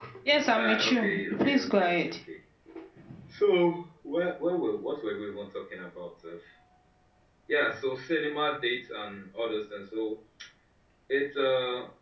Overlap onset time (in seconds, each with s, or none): 0.5 s